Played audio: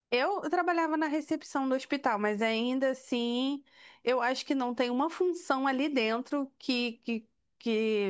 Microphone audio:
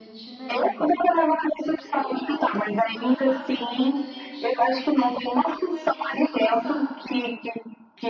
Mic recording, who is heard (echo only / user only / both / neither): both